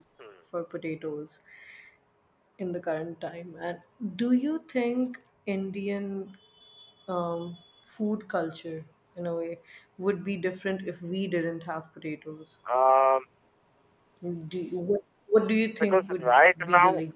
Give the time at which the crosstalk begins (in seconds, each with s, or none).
15.8 s